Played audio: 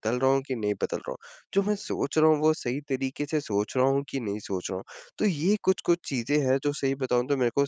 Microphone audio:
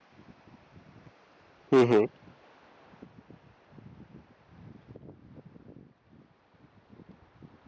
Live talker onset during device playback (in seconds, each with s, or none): 1.7 s